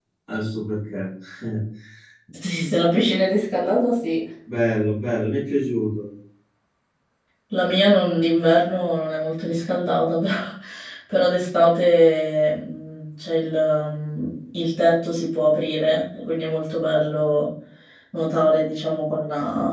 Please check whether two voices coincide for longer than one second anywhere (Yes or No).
No